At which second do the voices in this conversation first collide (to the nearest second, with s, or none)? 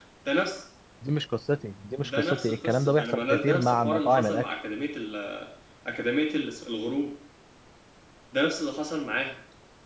2 s